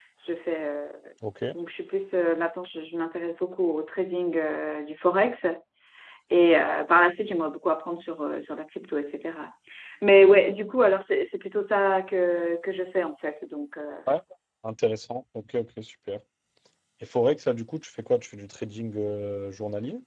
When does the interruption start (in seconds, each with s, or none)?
none